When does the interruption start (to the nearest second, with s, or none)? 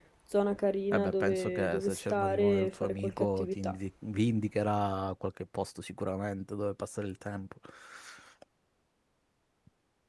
1 s